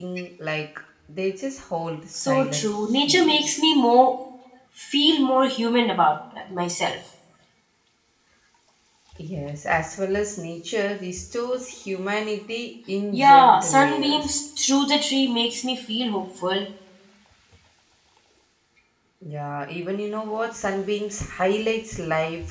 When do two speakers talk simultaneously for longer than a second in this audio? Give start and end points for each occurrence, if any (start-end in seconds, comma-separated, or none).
2.1-3.5, 13.1-14.4